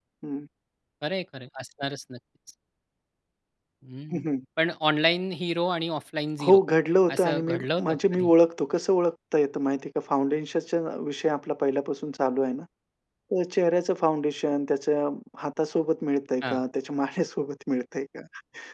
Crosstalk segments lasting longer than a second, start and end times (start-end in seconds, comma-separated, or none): 7.1-8.3